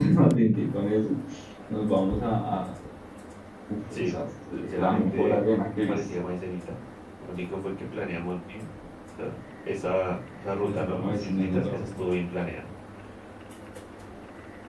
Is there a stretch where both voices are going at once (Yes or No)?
Yes